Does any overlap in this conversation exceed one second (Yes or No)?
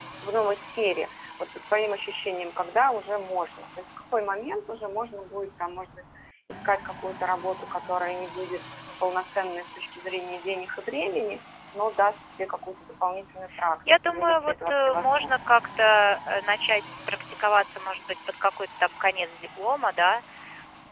Yes